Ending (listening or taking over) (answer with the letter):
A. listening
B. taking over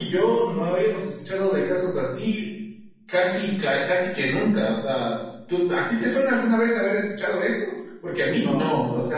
A